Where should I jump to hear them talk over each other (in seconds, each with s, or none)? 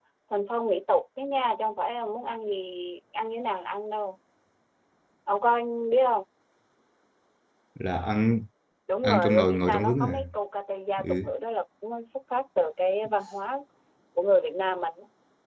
9.0 s